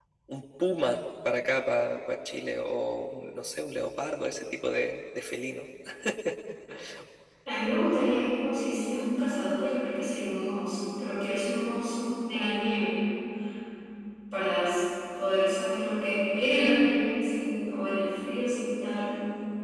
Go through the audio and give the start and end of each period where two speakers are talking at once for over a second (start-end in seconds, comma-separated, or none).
none